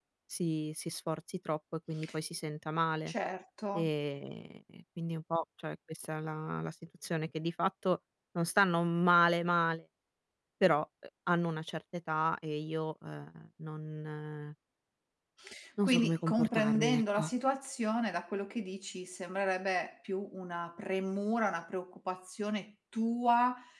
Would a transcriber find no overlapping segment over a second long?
No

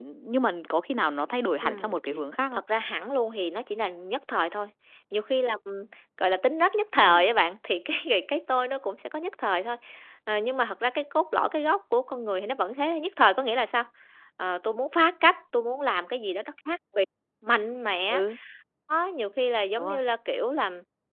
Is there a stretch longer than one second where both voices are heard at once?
No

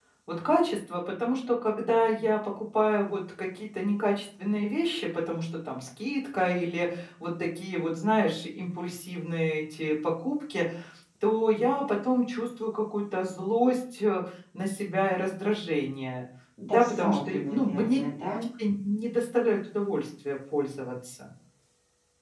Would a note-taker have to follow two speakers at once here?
Yes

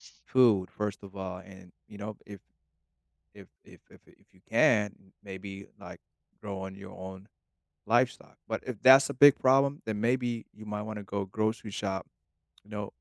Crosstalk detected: No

